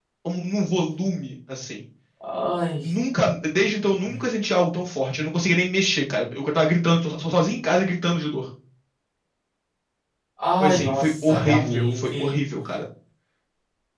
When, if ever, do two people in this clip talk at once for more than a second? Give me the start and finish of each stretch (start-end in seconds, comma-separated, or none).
10.6-12.4